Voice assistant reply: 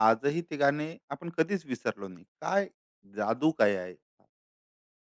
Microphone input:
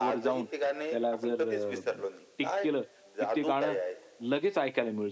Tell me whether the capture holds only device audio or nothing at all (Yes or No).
No